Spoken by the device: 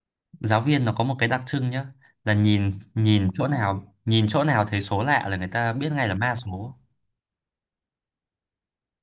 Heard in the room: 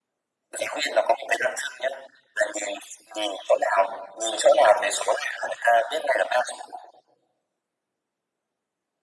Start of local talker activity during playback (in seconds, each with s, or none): none